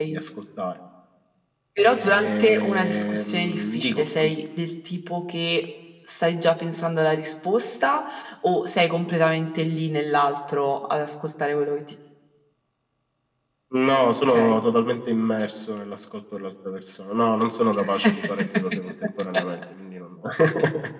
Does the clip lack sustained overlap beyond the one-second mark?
No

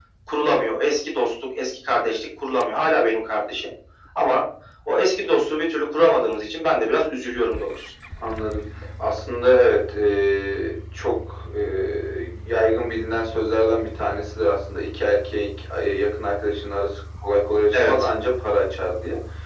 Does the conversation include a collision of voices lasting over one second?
No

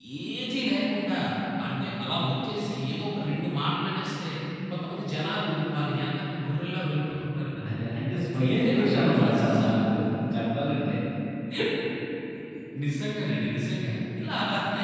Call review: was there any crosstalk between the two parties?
Yes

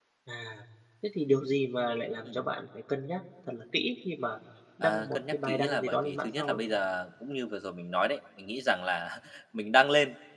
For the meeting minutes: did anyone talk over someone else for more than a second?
Yes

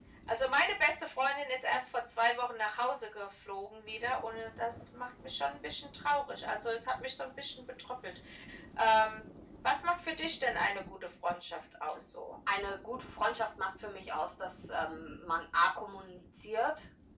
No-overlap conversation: Yes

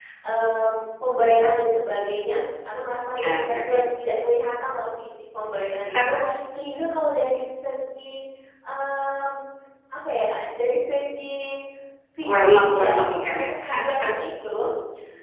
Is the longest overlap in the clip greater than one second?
Yes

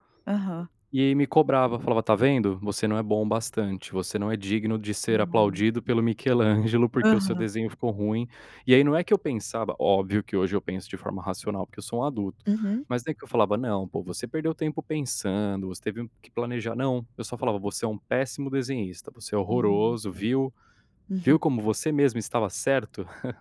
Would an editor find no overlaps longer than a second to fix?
Yes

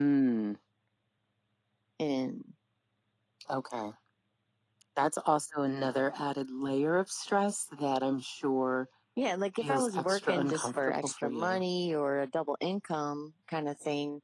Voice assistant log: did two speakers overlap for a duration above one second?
Yes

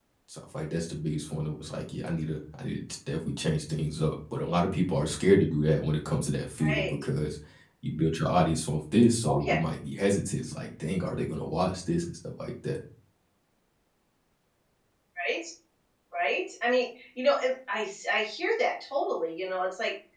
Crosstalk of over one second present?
No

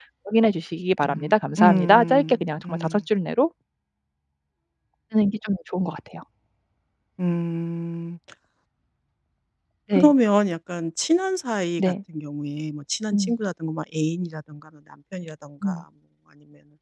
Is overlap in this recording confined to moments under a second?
No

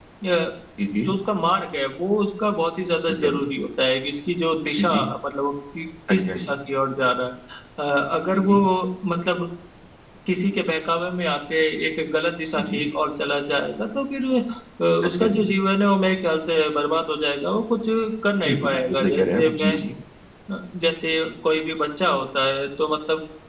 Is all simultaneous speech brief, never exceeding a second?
No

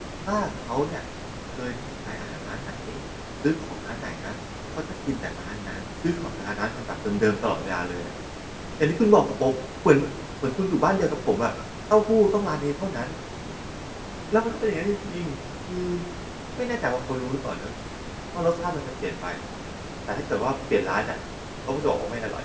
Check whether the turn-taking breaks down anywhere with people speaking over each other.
No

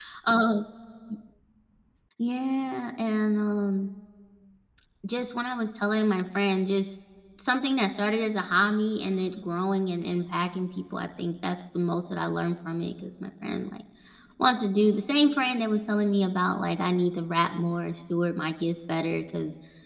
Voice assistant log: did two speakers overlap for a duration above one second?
No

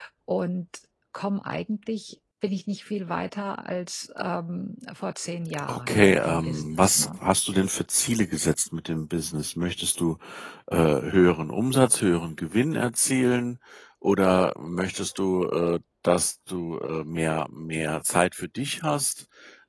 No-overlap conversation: No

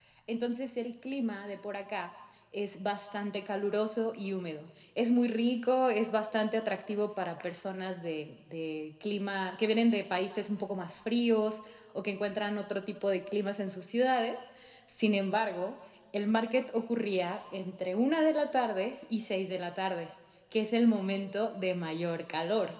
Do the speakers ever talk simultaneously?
No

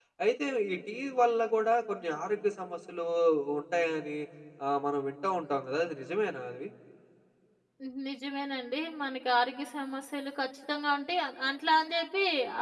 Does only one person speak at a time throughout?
Yes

